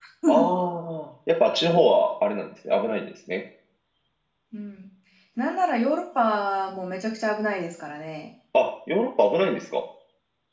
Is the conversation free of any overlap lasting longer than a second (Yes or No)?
Yes